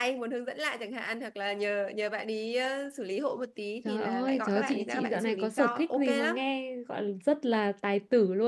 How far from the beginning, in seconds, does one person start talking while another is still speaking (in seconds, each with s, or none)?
3.9 s